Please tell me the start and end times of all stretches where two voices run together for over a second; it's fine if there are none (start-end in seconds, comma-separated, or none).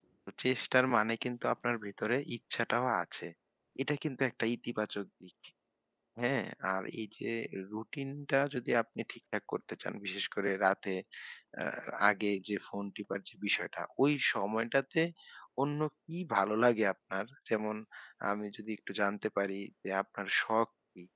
none